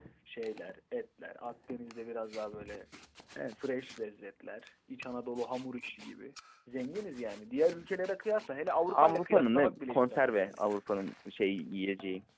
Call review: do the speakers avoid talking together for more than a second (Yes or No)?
No